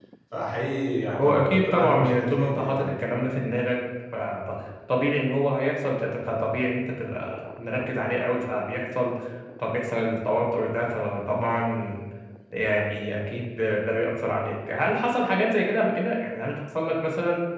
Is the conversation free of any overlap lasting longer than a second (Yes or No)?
No